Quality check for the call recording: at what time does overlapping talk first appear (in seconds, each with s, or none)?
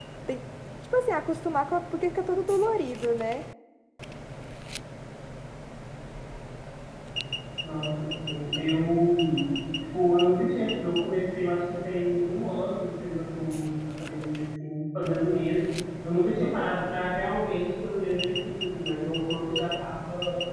none